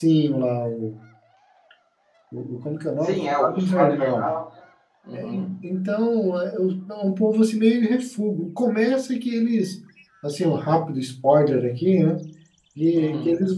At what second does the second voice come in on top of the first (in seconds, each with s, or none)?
3.0 s